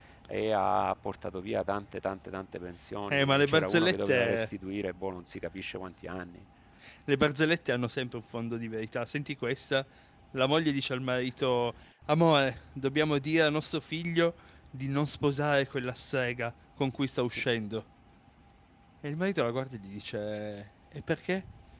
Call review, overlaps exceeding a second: present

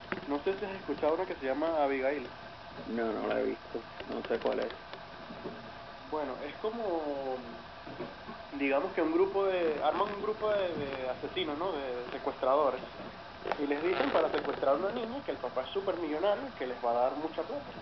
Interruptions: none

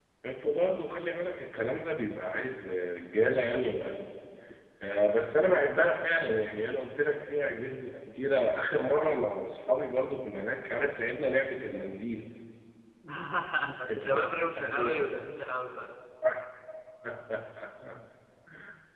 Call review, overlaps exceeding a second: present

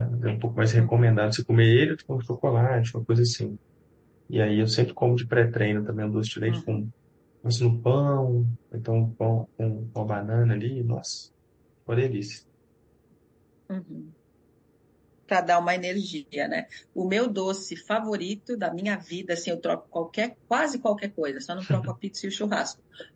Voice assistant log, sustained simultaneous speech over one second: none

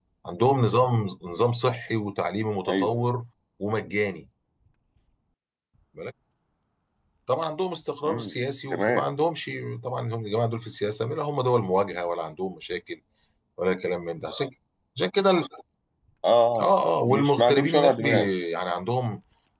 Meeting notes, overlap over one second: present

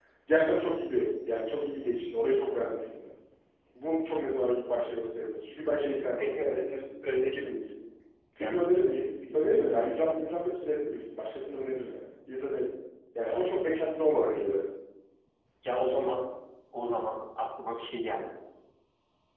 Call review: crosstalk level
present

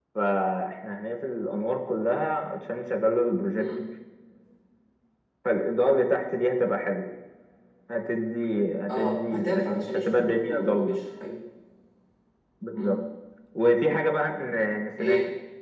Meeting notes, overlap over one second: present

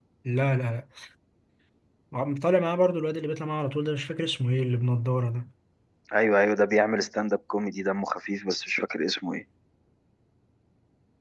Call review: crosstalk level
none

